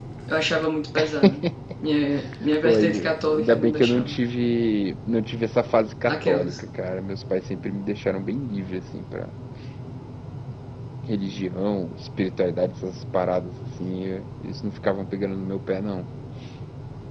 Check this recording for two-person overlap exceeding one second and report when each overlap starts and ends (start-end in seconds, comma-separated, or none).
2.6-4.2